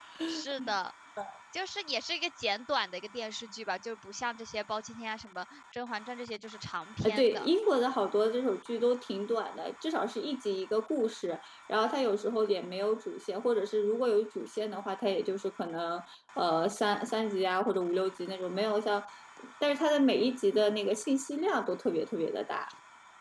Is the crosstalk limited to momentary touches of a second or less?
Yes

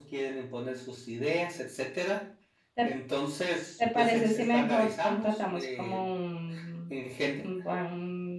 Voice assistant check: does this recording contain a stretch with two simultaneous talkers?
Yes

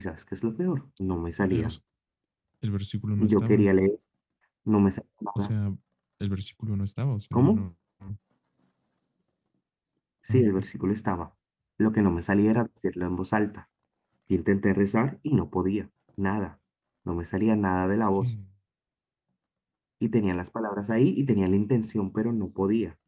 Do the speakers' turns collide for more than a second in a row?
No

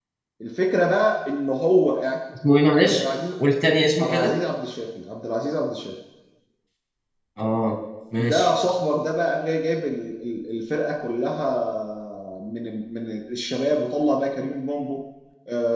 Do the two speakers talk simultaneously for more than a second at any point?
No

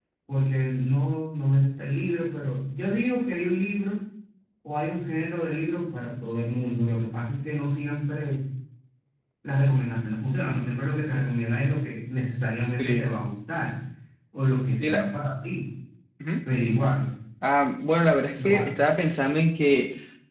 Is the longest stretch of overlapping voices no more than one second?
Yes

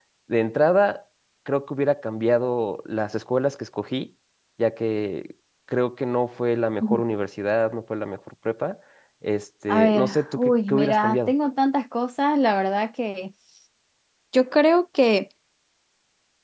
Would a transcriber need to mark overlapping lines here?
Yes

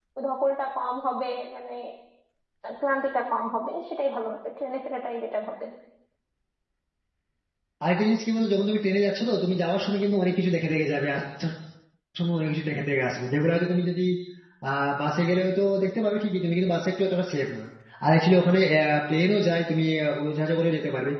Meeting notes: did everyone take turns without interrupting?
Yes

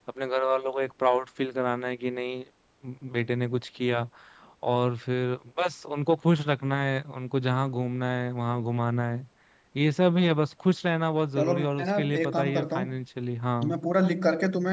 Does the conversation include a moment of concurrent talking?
Yes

